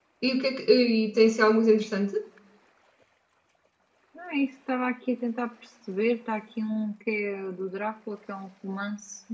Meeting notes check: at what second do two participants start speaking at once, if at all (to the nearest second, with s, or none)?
none